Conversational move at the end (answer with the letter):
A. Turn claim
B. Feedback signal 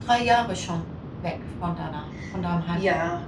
A